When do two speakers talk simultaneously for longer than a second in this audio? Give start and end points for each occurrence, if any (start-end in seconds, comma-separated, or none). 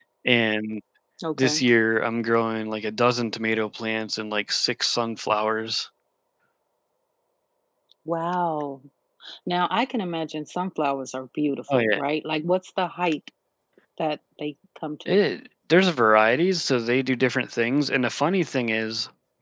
none